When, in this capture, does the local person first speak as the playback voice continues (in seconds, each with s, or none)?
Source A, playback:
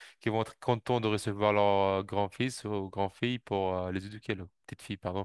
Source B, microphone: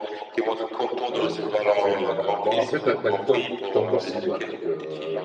1.1 s